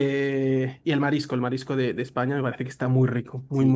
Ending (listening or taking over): taking over